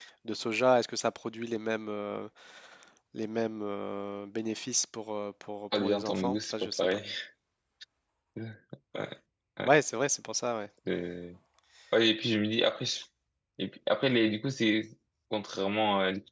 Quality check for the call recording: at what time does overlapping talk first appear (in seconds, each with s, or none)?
5.7 s